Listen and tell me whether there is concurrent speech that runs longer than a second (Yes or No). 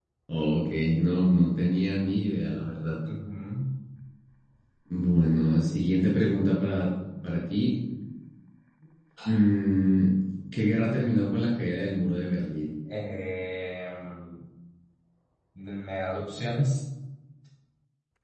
No